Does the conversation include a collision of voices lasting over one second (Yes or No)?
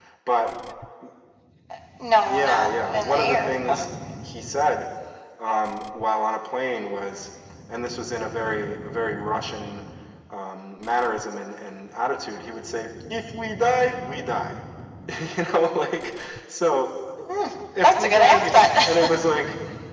Yes